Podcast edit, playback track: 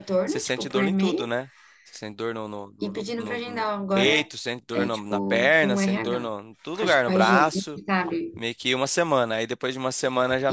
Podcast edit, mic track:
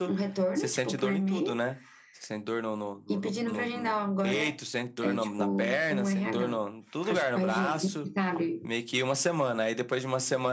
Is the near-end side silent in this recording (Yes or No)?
Yes